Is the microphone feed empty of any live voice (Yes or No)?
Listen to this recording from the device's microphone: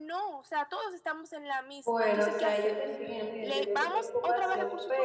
No